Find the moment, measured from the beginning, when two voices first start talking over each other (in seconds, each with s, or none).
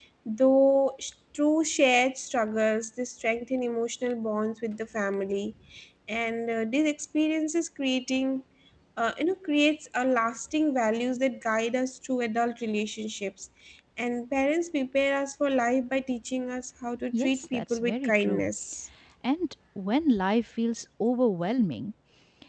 17.1 s